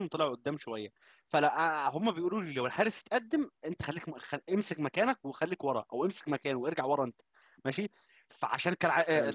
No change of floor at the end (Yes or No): Yes